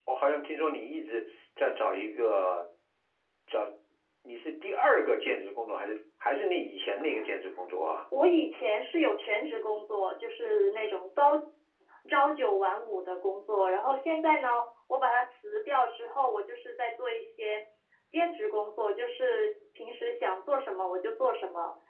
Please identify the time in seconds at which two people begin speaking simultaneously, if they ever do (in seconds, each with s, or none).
none